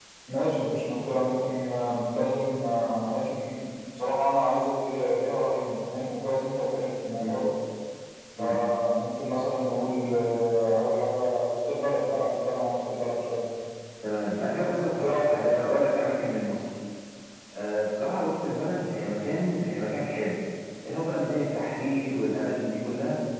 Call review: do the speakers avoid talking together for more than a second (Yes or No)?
No